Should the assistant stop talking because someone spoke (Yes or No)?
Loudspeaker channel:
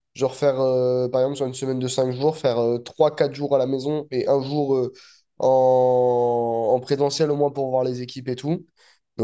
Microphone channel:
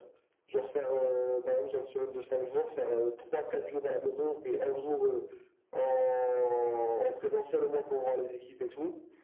No